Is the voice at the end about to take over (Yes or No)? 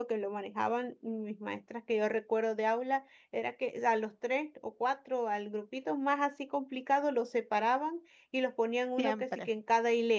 No